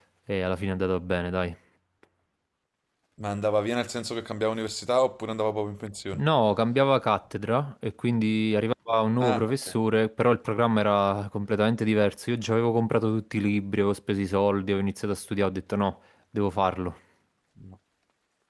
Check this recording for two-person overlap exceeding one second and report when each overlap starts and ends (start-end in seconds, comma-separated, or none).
none